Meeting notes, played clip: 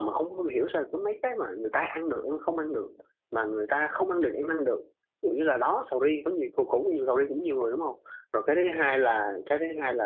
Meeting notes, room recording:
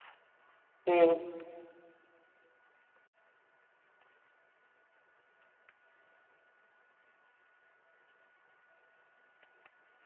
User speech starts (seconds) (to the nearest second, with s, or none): 1 s